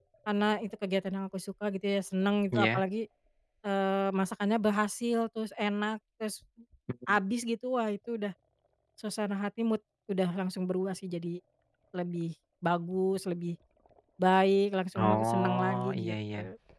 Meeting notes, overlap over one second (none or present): present